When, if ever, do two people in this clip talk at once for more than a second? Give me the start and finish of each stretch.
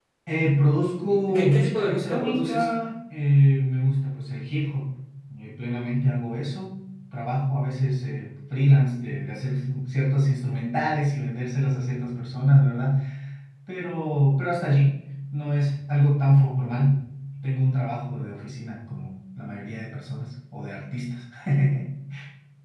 1.1-2.6

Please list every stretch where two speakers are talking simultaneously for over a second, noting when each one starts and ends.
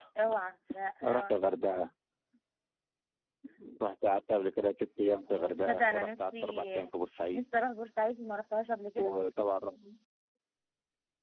5.3-6.7

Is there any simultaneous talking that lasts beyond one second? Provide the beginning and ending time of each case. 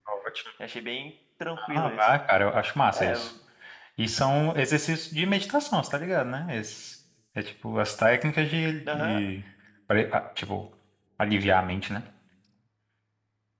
none

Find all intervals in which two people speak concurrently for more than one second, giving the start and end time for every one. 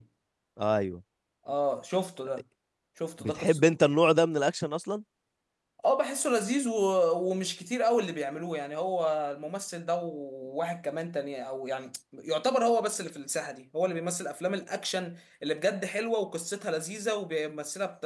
none

